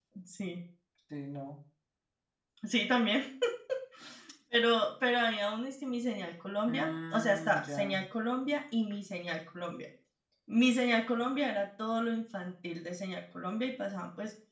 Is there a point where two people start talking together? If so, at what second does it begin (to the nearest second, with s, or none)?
7 s